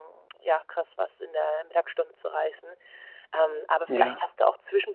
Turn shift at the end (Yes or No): No